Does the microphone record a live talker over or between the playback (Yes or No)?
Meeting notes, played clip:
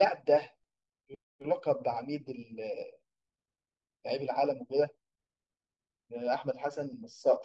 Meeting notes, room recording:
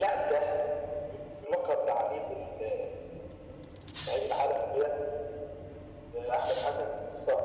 No